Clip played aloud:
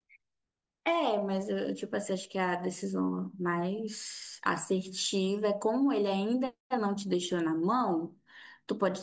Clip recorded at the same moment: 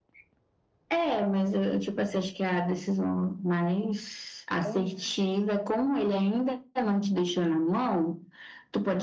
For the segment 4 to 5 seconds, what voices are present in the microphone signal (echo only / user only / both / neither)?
both